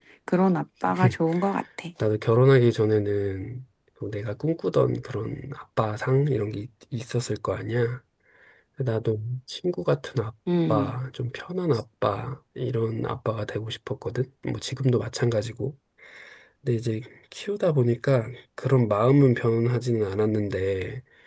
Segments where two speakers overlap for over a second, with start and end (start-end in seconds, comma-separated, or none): none